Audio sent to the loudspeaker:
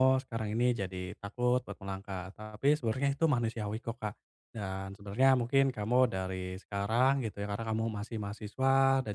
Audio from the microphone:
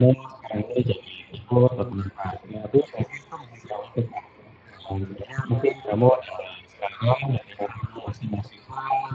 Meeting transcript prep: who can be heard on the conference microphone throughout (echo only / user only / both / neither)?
echo only